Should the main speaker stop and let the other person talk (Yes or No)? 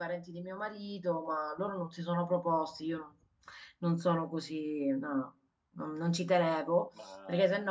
No